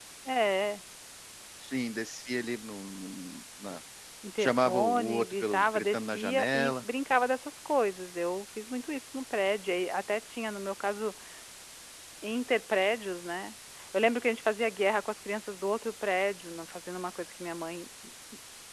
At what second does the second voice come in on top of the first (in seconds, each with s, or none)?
4.4 s